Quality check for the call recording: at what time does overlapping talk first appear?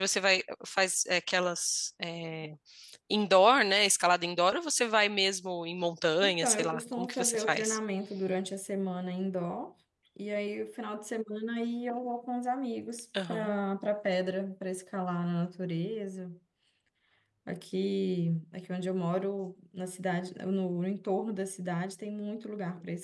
6.2 s

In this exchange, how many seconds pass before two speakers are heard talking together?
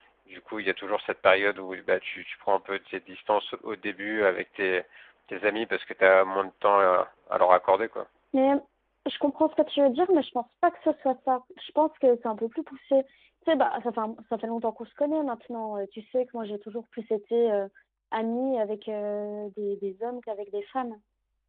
none

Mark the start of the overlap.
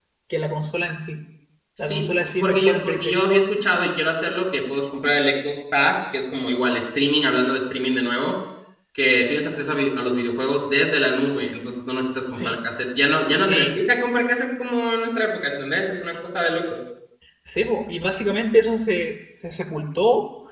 1.8 s

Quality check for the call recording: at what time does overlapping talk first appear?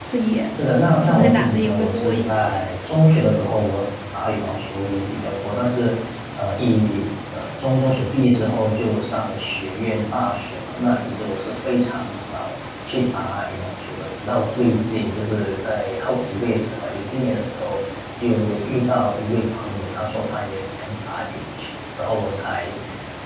1.0 s

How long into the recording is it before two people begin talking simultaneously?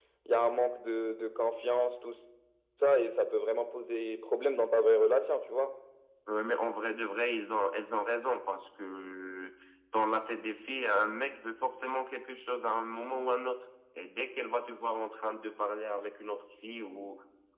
none

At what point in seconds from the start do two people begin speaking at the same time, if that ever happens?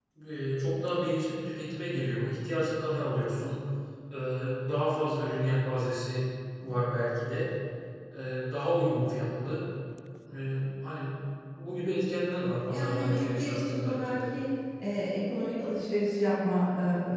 12.7 s

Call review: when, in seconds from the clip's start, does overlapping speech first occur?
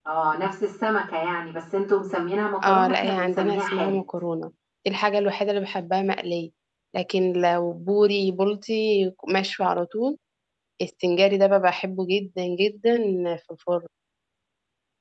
2.6 s

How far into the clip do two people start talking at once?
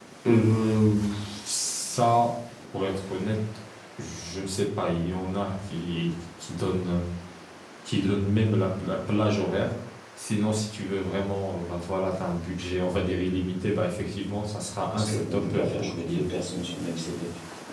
14.9 s

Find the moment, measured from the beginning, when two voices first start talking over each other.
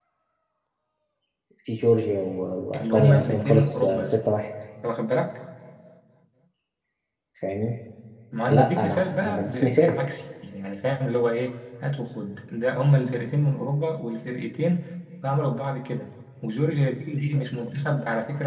2.8 s

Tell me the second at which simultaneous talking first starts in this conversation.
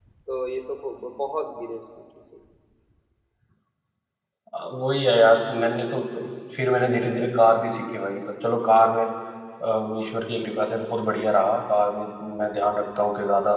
none

